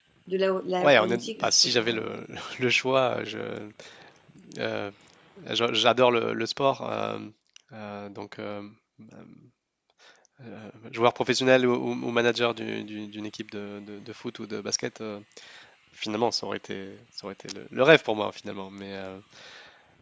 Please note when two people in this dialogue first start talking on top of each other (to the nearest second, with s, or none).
1 s